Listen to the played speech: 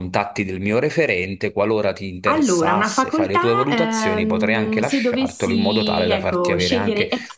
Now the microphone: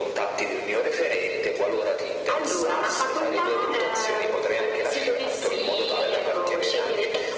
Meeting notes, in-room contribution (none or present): none